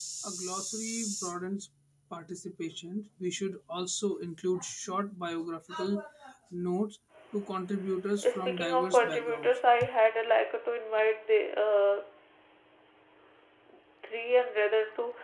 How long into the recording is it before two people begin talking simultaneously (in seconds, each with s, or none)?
8.3 s